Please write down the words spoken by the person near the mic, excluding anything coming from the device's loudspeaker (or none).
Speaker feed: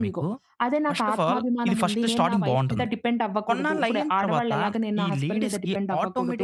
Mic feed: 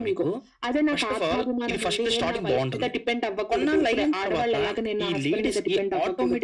none